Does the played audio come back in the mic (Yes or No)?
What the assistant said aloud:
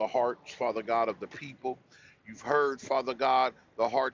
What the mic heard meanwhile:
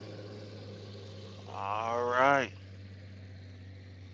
No